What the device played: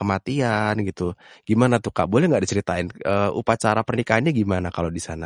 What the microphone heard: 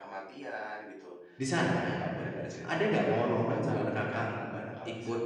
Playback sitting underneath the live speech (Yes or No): Yes